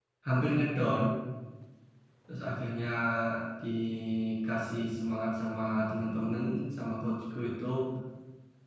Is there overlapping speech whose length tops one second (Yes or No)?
No